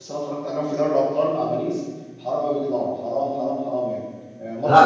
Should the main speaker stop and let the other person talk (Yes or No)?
No